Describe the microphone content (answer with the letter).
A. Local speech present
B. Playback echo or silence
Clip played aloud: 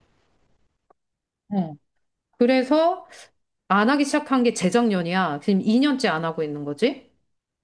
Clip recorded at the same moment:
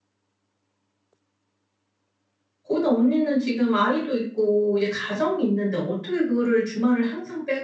A